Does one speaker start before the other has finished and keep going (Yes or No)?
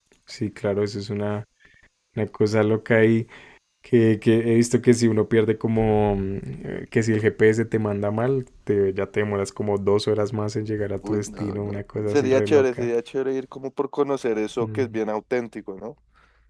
Yes